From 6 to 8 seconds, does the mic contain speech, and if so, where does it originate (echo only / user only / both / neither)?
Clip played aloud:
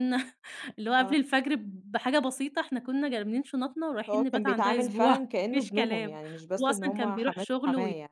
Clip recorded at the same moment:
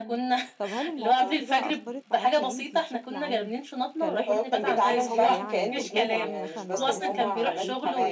both